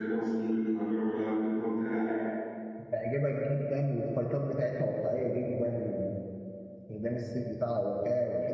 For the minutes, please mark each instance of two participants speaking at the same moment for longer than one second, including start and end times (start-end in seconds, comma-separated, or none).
none